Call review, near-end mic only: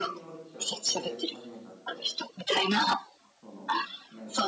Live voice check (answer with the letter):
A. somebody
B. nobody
A